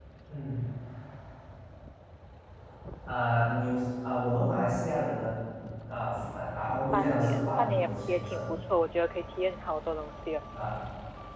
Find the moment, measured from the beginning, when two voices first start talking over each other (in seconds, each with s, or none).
6.7 s